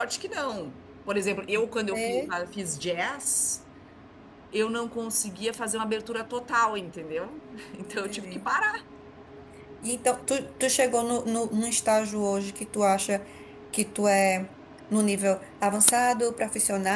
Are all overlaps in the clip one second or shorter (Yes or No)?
Yes